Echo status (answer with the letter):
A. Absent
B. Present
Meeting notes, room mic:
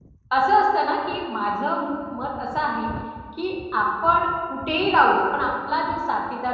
A